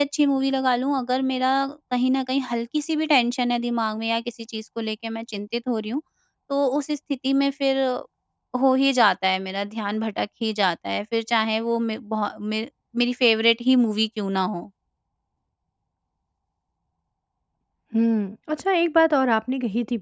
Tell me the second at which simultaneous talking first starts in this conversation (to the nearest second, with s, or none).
none